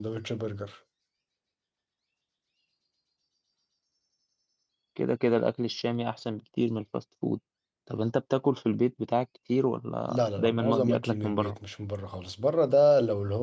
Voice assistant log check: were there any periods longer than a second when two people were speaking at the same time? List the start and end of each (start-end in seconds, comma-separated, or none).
10.1-11.5